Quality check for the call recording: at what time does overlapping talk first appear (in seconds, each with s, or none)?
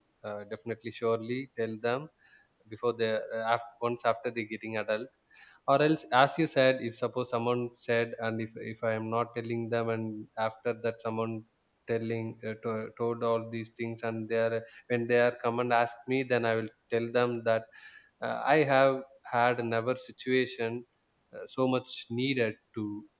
none